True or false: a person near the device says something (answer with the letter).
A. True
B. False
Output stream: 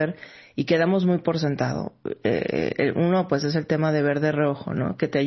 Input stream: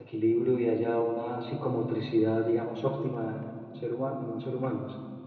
A